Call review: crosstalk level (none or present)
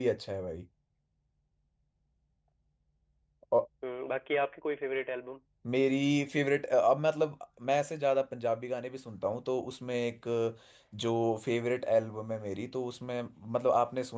none